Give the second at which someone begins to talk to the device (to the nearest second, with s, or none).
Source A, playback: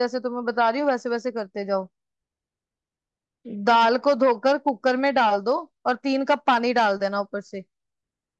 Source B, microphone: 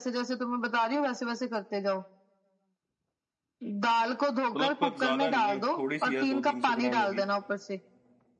5 s